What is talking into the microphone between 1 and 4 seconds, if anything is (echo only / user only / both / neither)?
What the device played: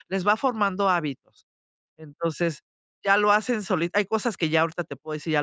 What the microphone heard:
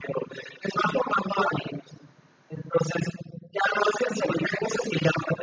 echo only